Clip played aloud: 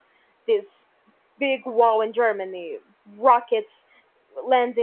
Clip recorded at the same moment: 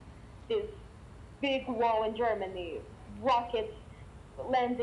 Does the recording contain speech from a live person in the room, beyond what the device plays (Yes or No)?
No